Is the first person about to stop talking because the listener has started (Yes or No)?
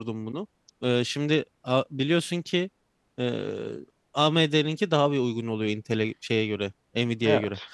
No